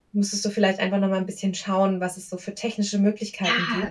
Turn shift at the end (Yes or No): Yes